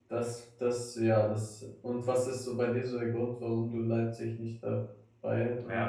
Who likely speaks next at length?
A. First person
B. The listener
B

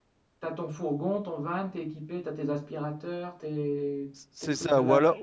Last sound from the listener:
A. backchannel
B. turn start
B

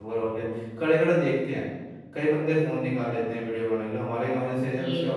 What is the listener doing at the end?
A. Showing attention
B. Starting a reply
A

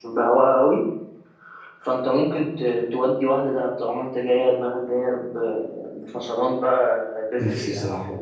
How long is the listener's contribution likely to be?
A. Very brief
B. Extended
B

